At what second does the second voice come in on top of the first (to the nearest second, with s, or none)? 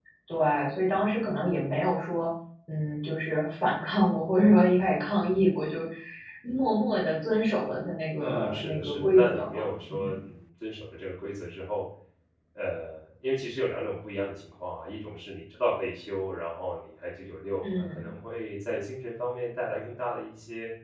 8 s